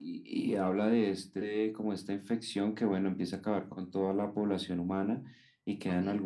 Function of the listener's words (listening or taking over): listening